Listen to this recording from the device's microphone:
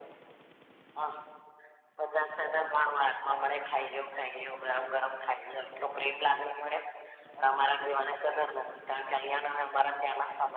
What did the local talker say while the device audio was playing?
none

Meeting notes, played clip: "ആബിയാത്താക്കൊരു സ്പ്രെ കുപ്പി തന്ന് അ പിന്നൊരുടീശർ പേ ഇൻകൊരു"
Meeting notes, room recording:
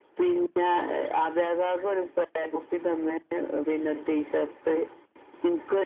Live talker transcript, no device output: none

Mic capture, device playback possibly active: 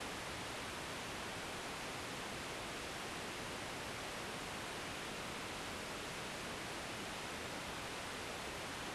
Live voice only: none

